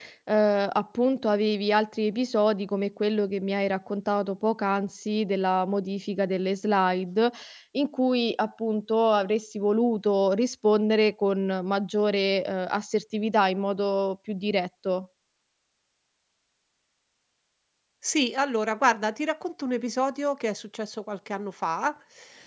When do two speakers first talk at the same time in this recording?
none

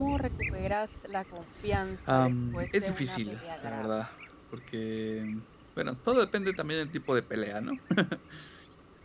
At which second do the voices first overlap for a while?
2 s

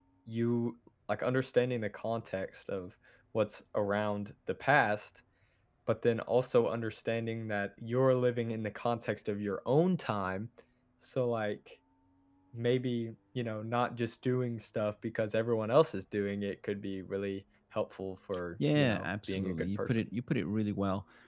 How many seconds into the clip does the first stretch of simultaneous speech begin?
19 s

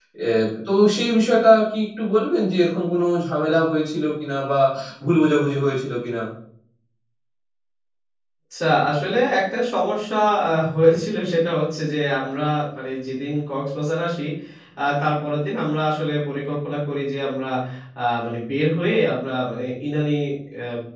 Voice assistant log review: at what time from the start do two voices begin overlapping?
none

